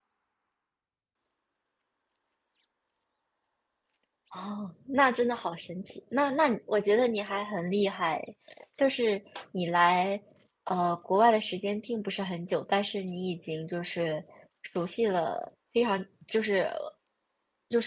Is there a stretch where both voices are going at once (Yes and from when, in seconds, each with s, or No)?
No